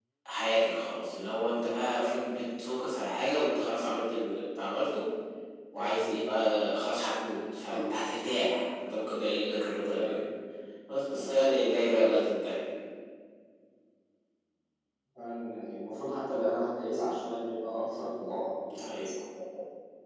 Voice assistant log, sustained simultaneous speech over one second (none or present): none